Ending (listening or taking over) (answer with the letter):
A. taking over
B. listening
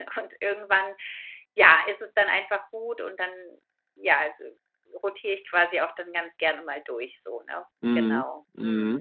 A